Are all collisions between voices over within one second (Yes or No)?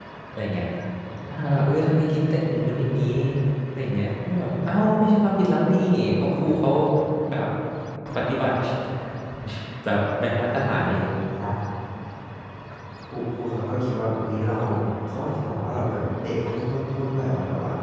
Yes